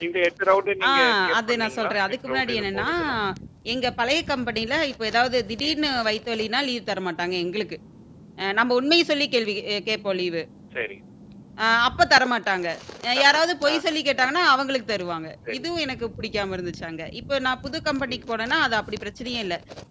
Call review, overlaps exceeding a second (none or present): present